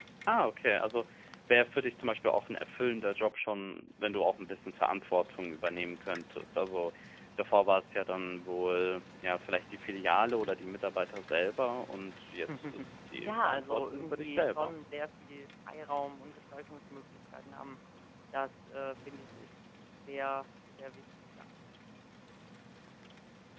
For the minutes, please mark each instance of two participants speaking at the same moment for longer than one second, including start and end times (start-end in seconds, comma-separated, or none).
13.2-14.8